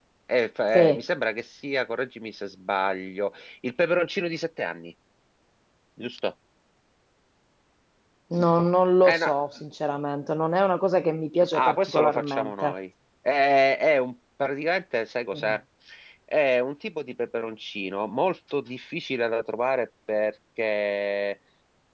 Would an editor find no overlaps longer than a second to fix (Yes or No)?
No